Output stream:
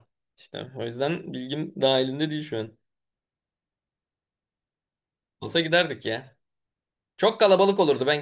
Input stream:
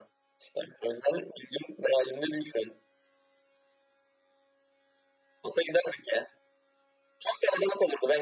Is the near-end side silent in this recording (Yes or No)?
Yes